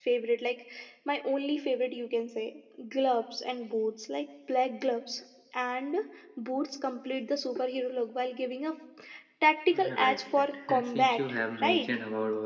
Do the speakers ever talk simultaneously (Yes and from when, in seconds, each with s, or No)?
Yes, from 10.0 s